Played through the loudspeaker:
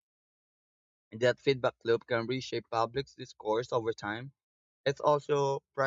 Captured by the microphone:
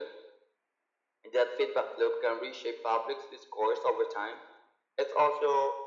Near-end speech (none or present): none